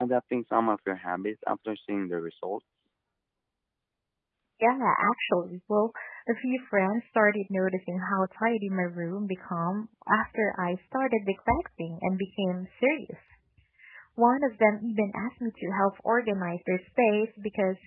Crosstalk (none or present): none